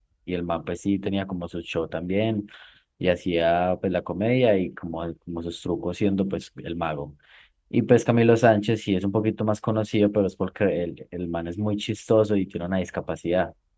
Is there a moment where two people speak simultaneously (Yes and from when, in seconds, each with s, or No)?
No